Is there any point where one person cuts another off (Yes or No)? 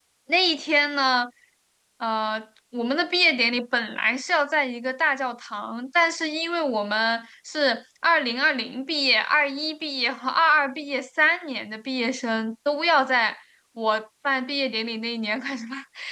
No